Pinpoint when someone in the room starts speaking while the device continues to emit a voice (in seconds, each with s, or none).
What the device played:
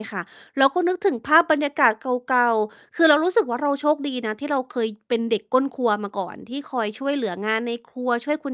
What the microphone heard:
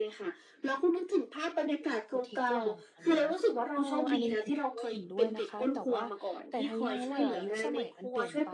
1.6 s